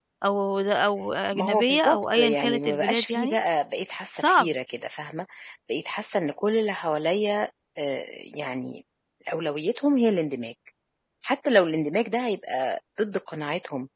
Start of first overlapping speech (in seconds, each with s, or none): 1.3 s